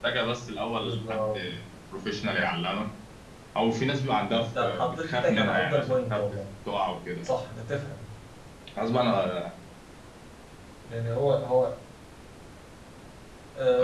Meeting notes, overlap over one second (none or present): present